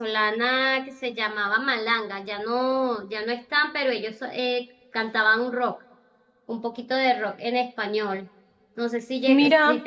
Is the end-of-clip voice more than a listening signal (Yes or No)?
No